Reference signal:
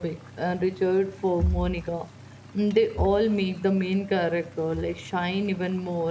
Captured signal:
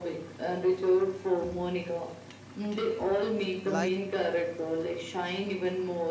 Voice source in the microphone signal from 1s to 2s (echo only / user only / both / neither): echo only